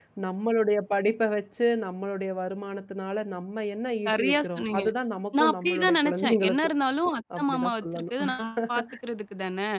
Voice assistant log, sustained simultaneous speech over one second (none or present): present